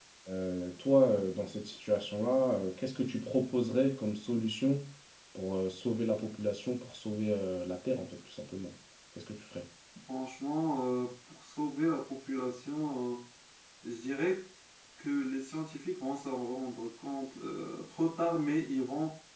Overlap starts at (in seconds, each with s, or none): none